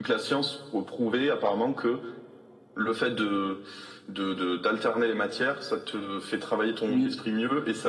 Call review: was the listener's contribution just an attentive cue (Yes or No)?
Yes